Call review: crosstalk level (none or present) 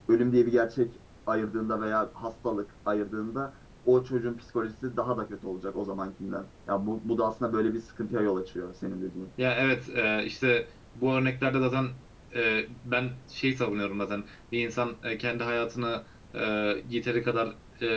none